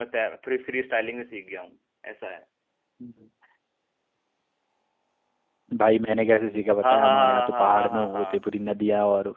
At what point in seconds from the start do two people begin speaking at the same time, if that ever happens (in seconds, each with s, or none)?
6.8 s